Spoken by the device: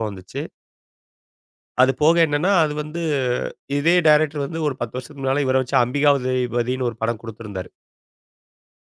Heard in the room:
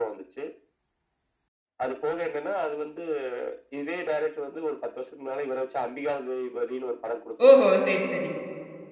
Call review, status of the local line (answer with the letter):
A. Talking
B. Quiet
A